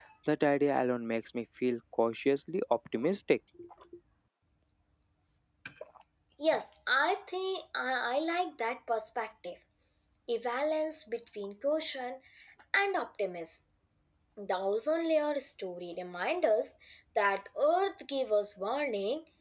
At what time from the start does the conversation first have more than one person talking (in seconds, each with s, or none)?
none